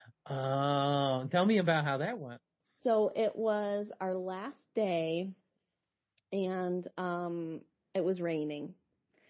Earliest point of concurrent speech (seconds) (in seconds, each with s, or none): none